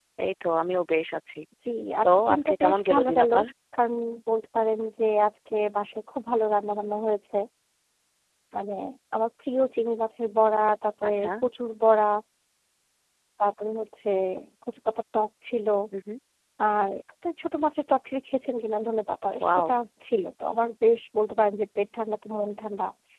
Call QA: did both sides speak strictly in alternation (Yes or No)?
No